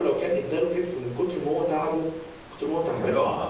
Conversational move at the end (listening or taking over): taking over